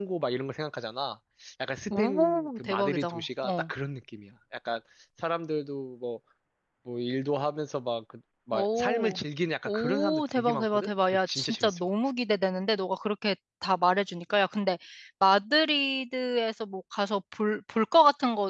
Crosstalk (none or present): present